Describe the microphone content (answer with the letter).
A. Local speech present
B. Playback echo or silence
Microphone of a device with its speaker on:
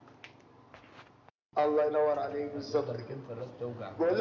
A